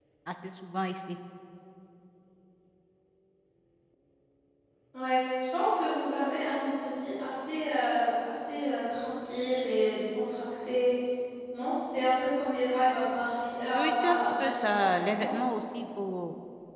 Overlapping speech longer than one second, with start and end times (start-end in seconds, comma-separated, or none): 13.7-15.3